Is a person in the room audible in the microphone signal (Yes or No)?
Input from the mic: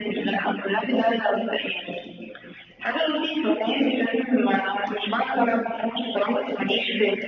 No